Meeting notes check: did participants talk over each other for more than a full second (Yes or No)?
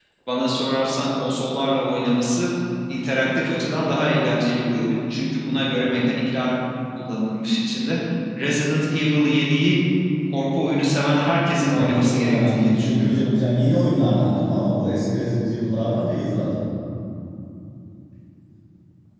Yes